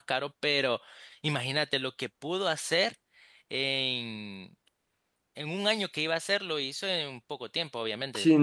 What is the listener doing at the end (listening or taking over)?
taking over